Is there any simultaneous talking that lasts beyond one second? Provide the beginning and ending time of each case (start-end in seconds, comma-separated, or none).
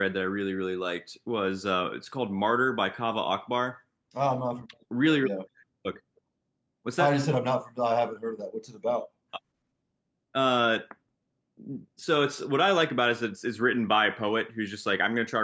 none